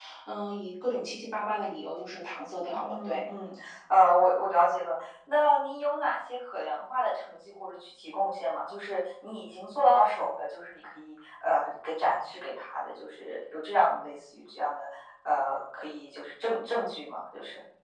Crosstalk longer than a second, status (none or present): none